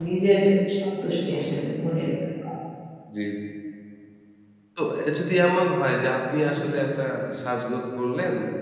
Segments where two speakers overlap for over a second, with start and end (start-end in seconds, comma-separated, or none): none